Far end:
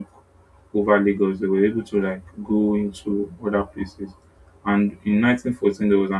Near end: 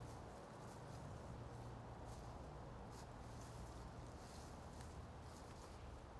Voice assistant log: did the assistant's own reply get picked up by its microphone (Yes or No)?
No